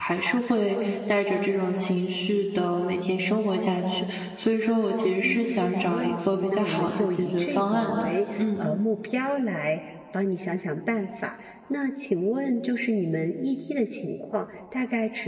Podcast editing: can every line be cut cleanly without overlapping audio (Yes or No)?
No